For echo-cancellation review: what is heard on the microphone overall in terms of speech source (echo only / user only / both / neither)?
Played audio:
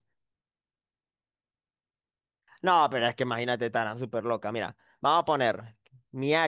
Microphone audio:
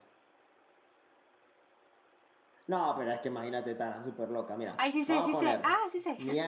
both